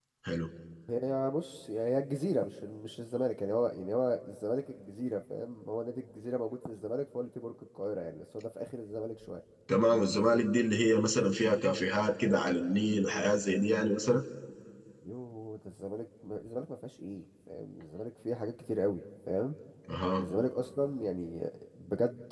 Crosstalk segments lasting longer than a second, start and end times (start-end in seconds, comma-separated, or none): none